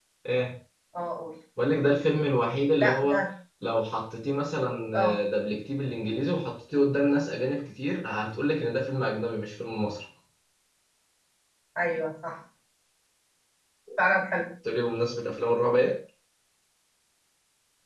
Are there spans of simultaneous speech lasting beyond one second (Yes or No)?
No